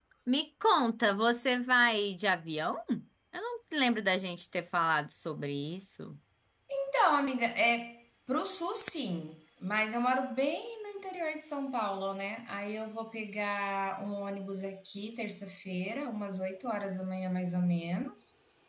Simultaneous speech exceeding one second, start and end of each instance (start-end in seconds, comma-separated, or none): none